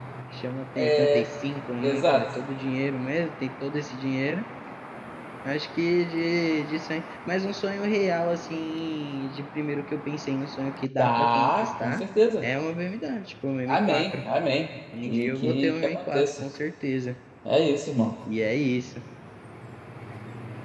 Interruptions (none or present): present